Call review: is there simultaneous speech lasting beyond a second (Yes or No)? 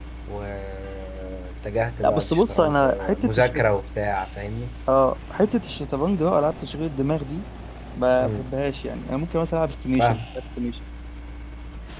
Yes